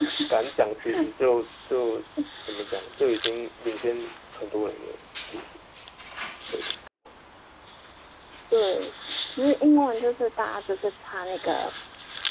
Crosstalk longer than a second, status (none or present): none